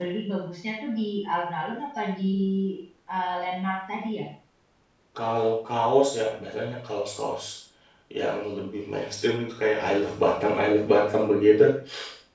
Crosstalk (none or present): none